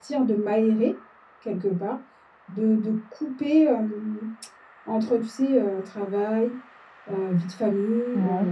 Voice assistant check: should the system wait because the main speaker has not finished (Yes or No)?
Yes